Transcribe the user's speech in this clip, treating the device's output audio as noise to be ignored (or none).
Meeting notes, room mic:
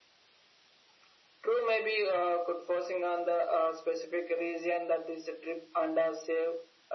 none